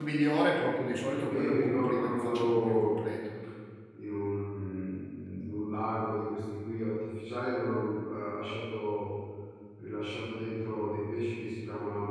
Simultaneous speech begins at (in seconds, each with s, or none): 1.2 s